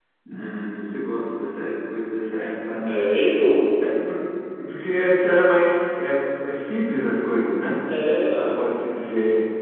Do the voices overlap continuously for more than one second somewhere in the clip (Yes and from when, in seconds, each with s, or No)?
No